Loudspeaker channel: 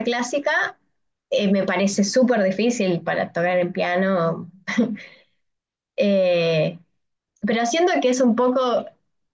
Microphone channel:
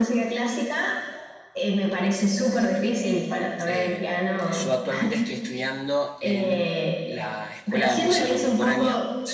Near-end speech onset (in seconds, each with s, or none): 3.6 s